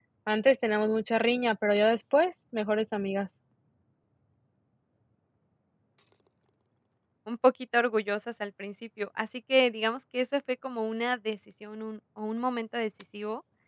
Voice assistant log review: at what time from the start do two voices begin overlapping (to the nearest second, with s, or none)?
none